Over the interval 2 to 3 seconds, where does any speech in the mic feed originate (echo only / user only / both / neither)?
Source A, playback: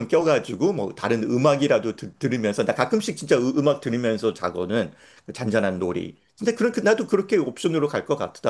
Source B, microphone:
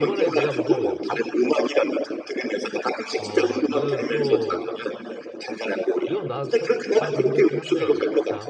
echo only